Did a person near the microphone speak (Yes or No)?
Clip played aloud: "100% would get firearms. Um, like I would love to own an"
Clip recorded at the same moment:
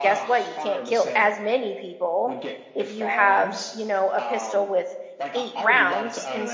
Yes